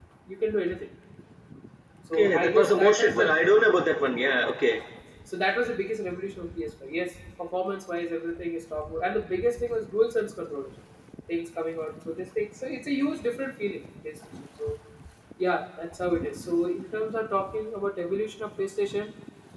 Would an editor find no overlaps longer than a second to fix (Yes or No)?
No